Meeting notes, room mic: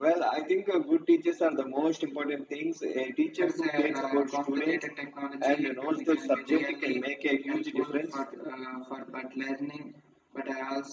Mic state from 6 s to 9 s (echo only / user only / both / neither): echo only